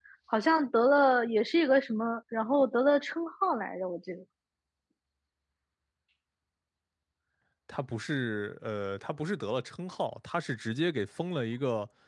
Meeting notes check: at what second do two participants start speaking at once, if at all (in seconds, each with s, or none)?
none